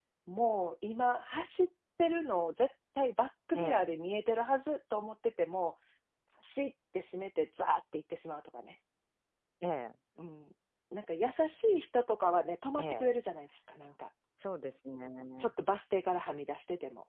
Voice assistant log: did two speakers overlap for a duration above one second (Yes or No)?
No